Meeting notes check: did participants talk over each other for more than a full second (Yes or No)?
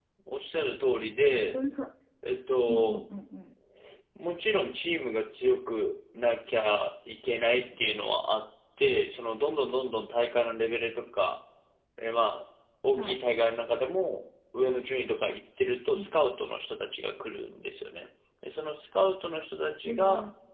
No